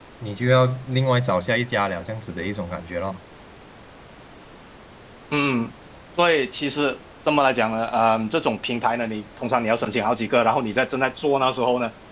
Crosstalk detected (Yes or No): No